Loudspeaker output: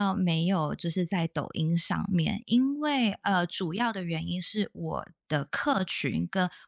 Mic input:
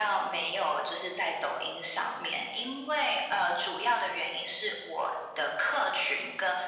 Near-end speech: none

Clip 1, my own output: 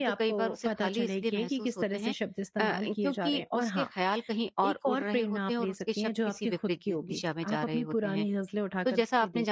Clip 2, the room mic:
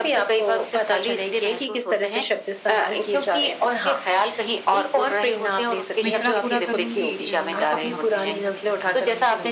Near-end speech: present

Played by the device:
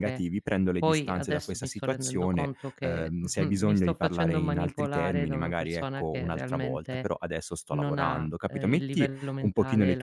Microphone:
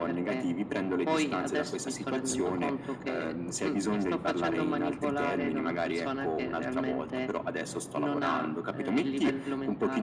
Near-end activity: none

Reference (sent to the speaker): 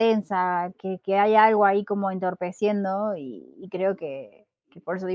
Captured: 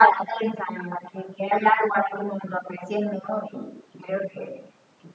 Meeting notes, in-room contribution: none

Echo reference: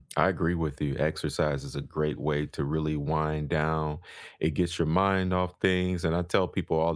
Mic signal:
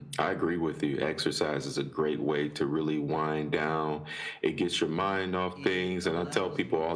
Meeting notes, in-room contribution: present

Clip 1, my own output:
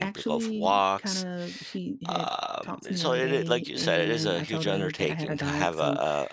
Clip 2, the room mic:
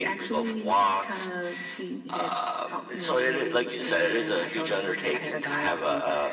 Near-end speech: none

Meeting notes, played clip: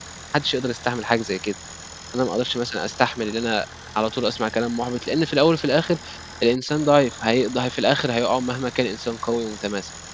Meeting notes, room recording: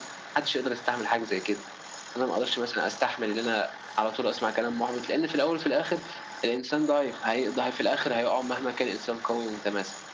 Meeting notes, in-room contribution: none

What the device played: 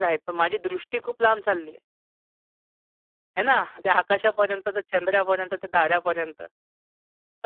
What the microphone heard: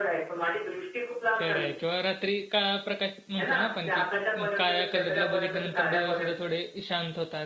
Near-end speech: present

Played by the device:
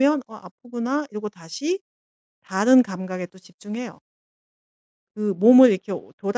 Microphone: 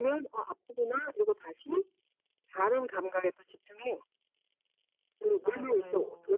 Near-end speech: present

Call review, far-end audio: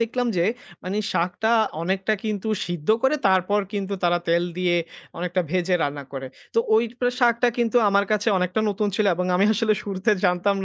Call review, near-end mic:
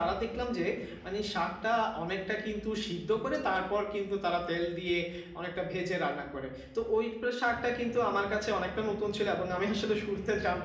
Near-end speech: none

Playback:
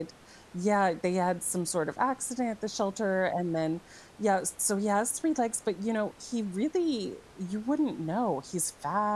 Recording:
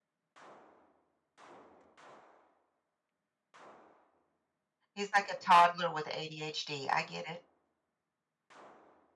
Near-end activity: present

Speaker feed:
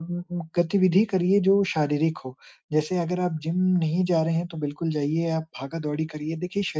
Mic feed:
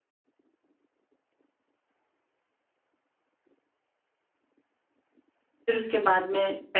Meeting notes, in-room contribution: present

